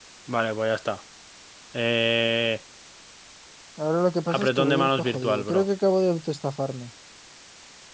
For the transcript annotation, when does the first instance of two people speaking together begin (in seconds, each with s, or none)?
4.4 s